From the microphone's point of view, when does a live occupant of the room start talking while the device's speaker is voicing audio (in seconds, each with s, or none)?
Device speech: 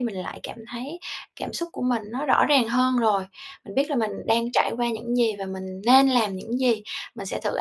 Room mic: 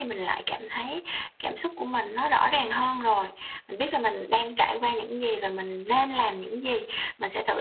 none